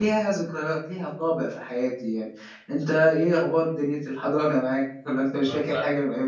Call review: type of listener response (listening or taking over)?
taking over